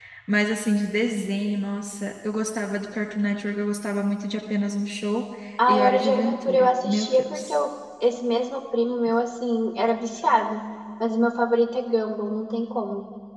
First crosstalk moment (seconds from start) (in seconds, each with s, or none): 5.7 s